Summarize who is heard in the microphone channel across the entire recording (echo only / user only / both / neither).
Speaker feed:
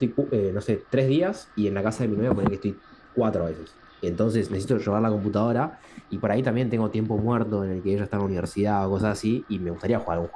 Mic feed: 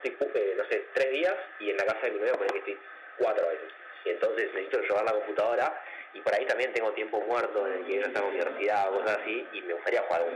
both